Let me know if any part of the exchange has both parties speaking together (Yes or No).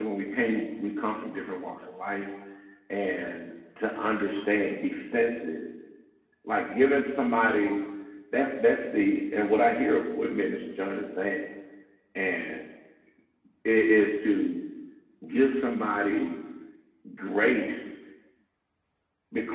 No